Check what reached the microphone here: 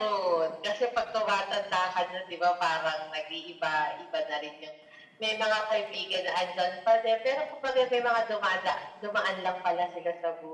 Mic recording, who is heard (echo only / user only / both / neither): echo only